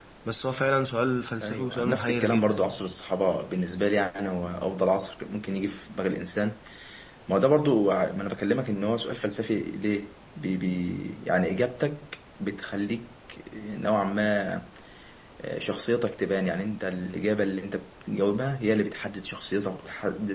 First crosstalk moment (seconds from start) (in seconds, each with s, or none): 1.4 s